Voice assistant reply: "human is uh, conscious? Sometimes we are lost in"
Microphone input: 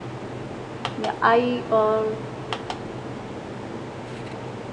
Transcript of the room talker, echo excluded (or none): Yeah, I uh,